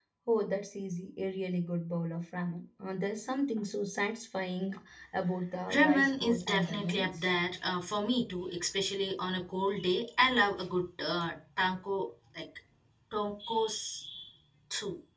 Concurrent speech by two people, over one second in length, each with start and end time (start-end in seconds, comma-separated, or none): 5.7-7.2